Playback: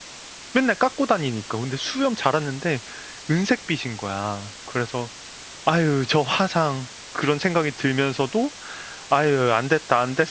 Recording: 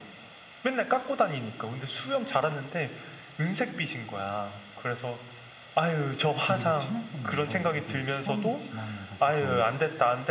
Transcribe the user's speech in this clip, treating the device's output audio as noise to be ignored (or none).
그리고 친했었는데 이게 시간이 지나면서 조금